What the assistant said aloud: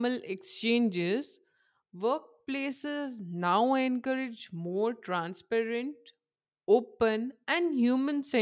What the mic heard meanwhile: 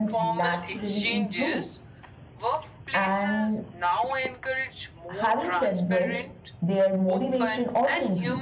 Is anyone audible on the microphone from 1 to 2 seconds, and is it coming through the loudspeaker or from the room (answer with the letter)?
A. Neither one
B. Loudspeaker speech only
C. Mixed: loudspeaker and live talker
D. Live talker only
C